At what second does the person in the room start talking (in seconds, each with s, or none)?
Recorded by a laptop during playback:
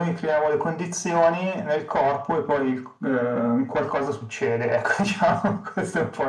none